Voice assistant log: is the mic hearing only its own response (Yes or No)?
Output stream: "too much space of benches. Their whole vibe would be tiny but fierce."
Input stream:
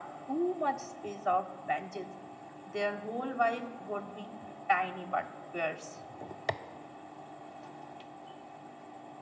Yes